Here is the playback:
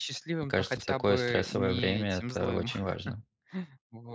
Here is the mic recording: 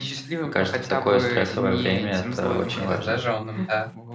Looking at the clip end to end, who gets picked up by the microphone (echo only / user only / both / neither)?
both